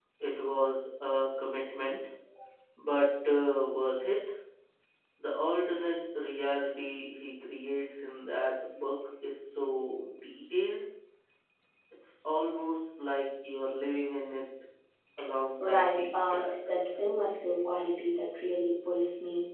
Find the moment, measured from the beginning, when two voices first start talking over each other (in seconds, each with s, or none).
15.6 s